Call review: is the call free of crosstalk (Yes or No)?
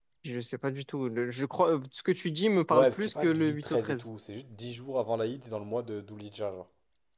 No